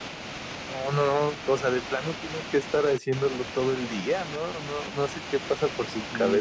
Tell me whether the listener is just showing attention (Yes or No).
No